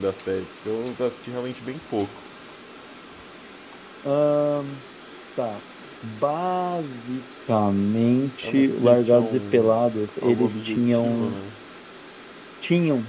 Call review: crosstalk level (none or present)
present